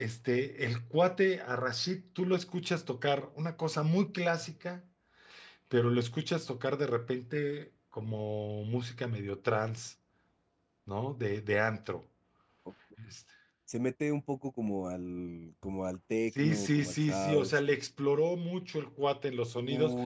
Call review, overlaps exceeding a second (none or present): present